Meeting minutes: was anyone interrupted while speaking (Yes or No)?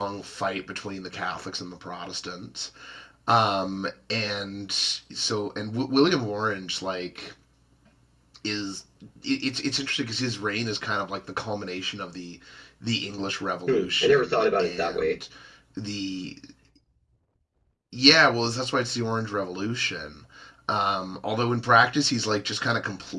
Yes